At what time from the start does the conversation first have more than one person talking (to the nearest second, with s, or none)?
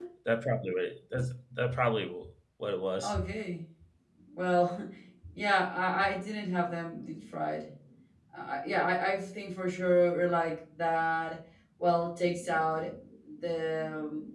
none